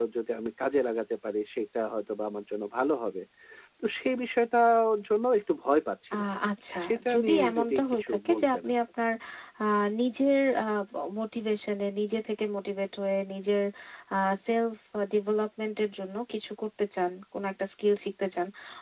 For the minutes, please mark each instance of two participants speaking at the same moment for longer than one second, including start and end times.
6.8-8.8

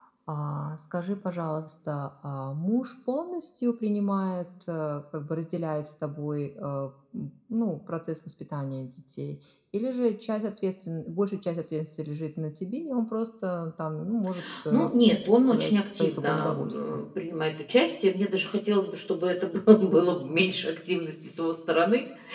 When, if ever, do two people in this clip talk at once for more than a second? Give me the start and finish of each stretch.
15.4-17.0

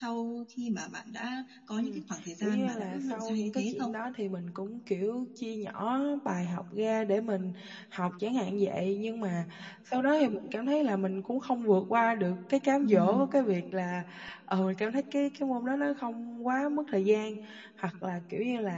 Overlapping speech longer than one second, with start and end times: 2.4-3.9

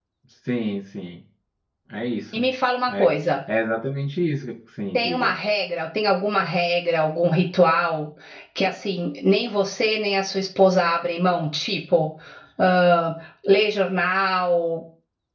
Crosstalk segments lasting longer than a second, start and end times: none

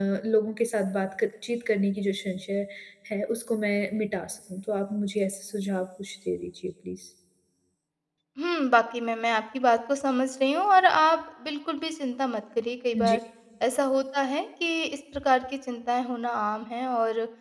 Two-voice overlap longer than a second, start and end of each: none

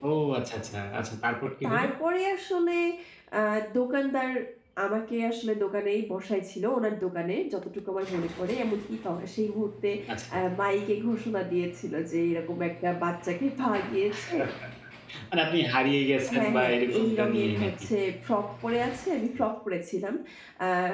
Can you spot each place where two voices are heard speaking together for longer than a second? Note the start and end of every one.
16.4-17.7

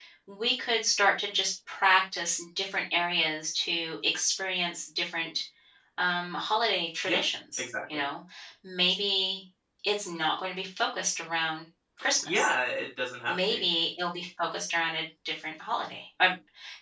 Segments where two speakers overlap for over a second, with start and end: none

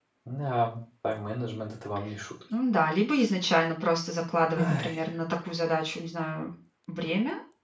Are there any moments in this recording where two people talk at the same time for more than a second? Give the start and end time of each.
none

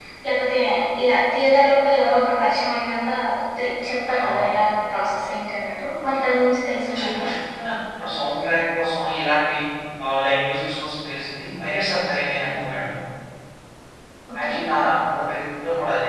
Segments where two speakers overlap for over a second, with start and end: none

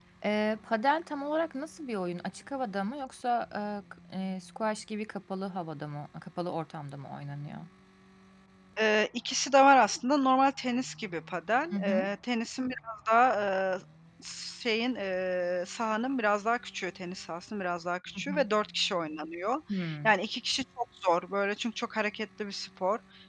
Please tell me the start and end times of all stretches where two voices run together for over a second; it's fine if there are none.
none

